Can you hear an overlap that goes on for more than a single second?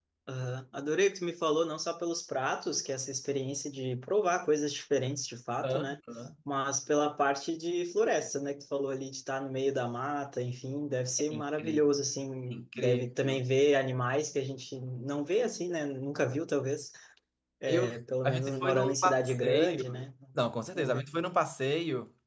Yes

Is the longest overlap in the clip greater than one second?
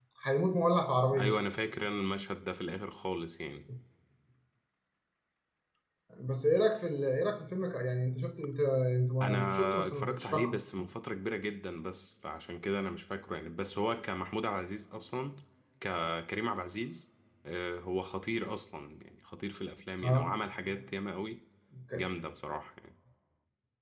Yes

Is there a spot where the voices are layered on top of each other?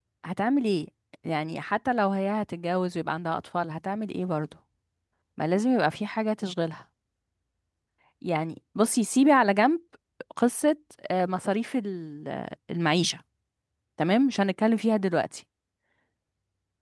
No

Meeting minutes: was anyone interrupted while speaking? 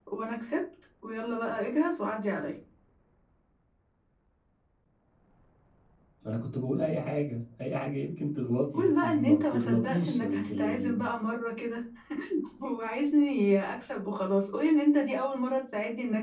Yes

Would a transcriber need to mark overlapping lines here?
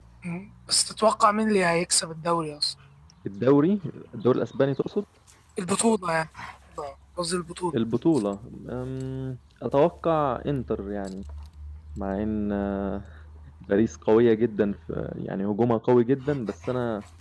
No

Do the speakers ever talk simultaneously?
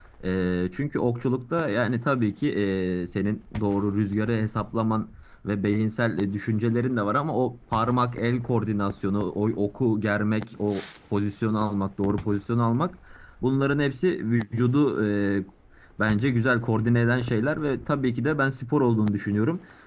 No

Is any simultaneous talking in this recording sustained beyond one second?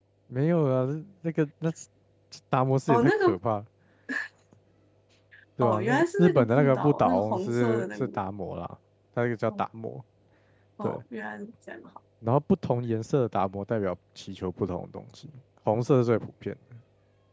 Yes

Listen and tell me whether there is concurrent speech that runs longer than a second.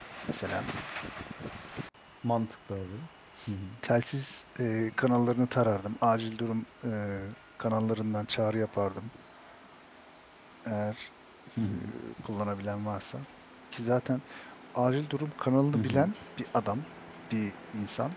No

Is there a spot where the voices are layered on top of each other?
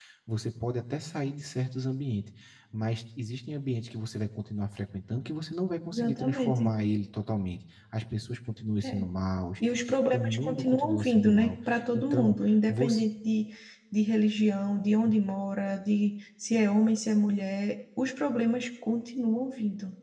Yes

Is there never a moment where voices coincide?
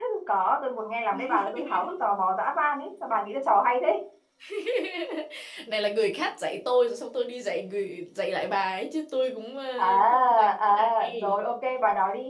No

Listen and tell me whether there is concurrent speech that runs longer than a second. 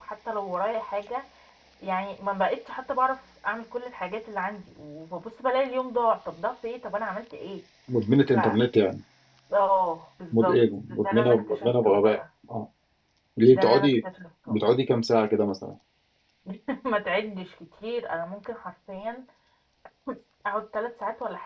Yes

